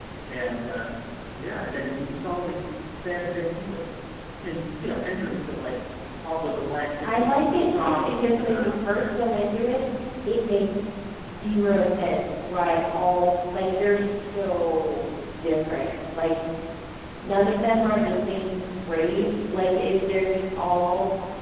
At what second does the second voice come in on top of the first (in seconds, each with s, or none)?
7.8 s